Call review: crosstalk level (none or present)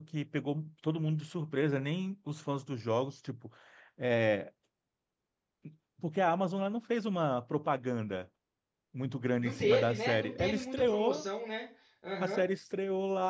present